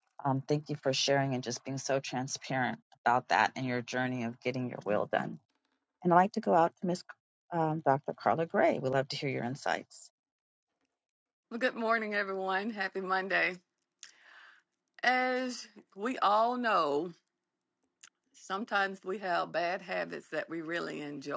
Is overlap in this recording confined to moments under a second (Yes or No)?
Yes